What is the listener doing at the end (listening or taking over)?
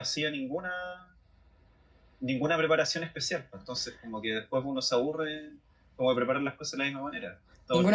taking over